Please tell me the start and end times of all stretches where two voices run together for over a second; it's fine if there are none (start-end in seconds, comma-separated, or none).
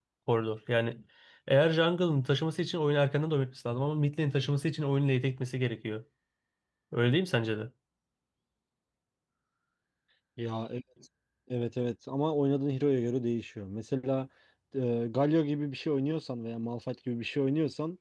none